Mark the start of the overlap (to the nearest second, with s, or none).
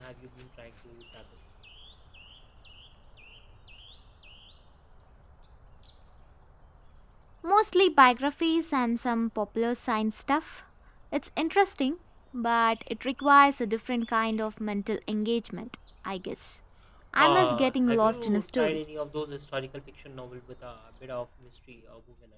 17 s